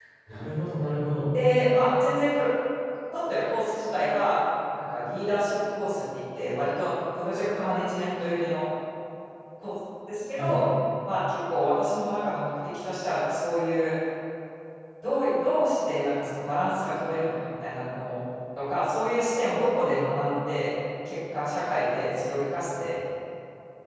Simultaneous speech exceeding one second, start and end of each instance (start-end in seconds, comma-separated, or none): none